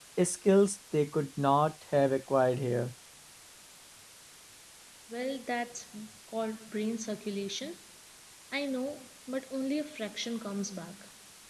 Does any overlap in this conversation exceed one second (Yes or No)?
No